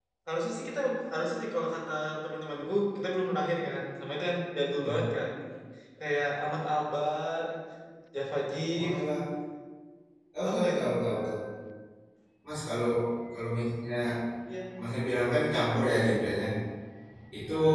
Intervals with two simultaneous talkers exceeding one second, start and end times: none

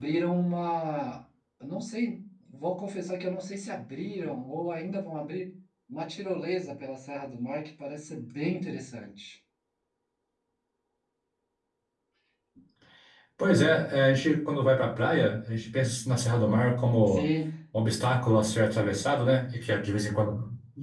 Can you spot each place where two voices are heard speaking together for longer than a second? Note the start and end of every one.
none

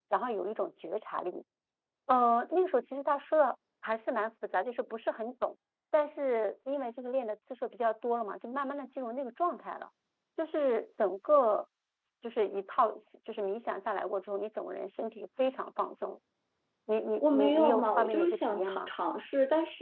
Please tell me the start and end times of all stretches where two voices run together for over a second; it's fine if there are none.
17.2-18.9

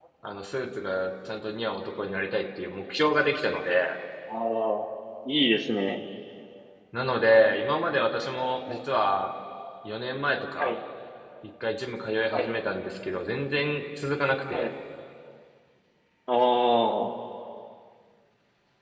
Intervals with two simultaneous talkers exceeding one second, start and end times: none

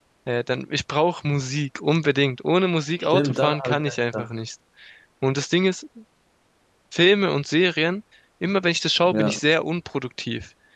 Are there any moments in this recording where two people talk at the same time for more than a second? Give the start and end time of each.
3.0-4.3

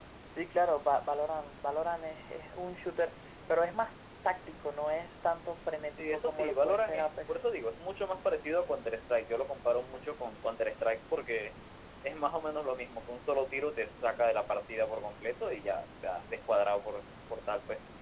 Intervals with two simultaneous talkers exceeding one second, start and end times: 6.0-7.3

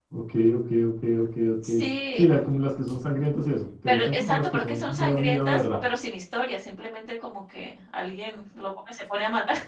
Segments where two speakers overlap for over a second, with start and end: 3.9-5.8

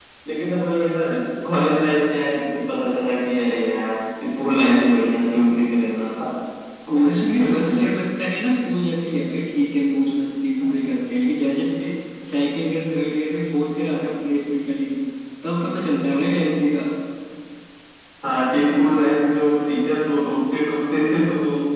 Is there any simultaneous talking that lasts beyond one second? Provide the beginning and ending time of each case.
none

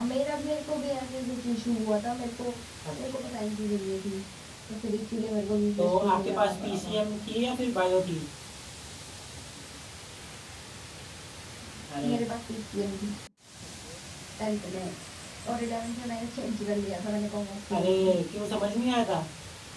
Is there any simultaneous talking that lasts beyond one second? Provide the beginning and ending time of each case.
5.8-7.0

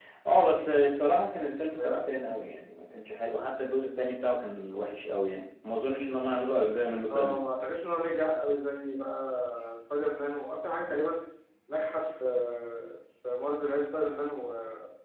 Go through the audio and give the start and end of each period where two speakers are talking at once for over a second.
none

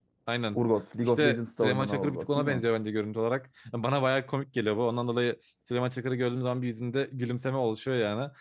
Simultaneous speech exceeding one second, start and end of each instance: 1.0-2.6

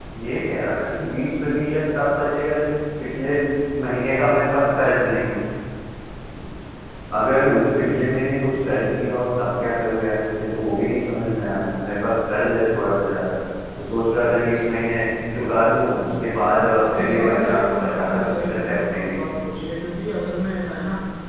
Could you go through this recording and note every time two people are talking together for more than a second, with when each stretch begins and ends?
16.8-19.2

